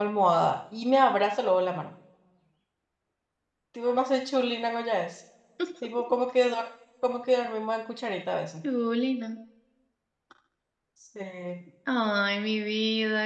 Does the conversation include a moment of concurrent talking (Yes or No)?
No